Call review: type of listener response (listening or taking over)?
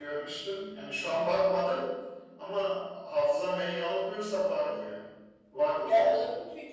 taking over